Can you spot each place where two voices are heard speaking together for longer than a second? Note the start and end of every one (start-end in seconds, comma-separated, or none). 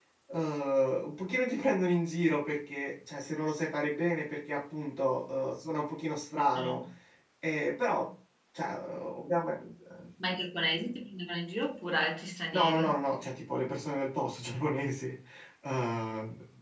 none